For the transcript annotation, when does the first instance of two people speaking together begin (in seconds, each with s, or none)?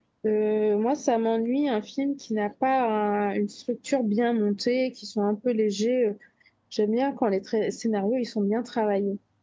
none